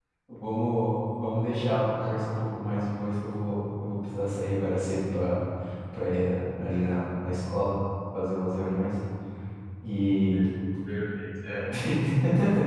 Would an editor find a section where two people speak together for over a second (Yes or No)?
No